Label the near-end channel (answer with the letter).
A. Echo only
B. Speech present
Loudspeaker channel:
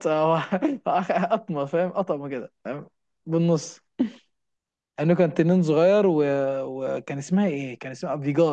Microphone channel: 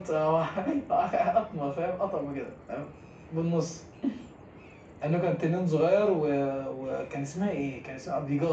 A